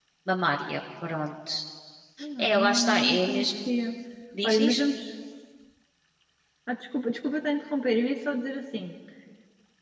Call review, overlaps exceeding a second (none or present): present